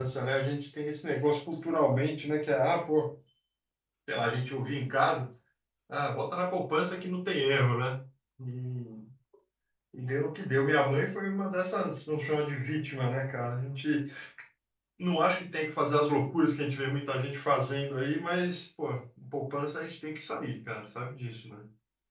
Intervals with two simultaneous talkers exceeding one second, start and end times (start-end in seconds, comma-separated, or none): none